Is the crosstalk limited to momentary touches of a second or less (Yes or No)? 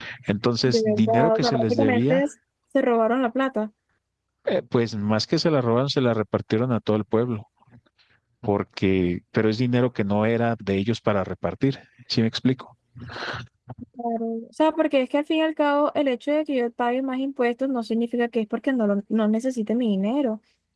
No